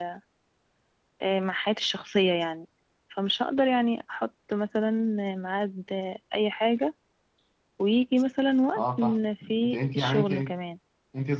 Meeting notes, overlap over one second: present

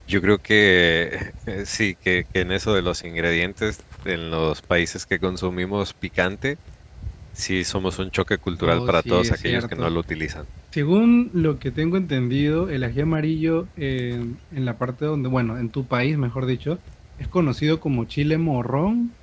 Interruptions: present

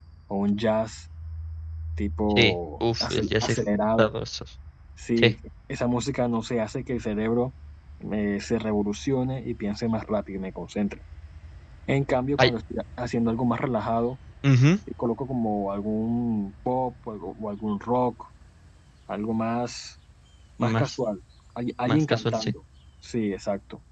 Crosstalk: present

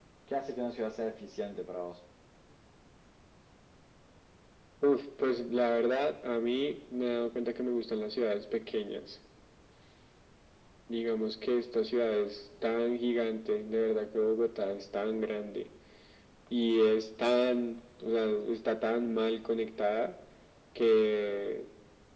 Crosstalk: none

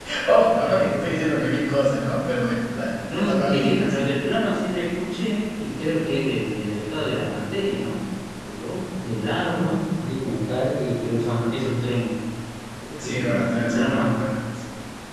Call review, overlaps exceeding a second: present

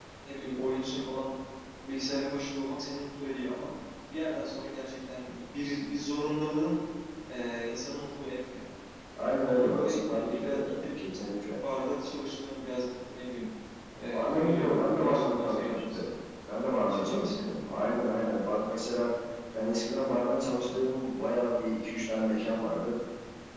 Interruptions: present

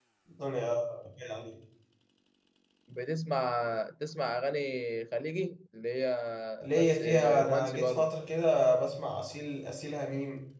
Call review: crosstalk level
present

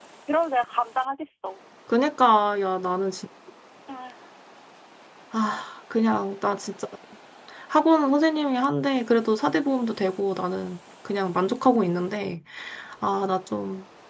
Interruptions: none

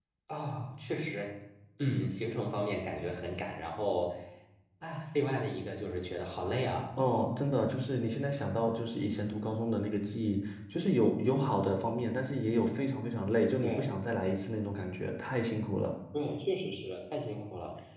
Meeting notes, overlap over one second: none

